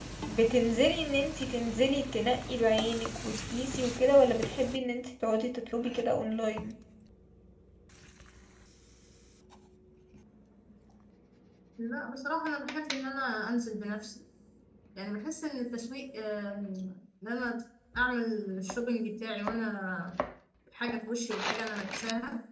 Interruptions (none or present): none